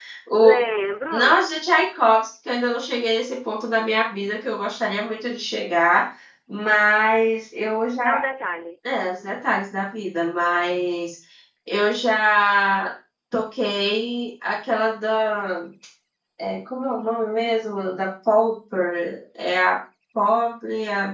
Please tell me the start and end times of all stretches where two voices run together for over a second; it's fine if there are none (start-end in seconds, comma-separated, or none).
none